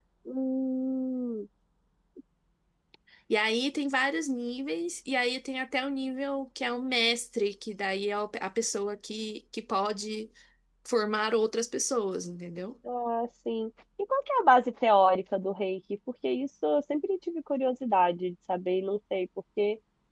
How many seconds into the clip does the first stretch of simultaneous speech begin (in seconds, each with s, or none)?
none